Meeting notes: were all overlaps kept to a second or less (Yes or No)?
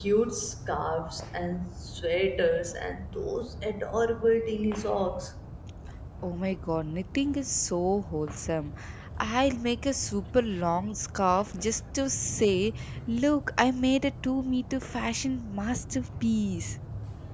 Yes